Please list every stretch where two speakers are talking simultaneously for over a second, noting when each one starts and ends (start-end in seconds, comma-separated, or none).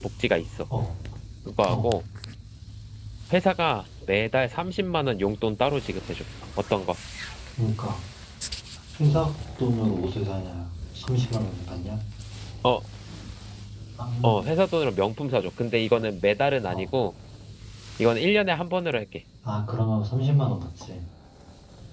none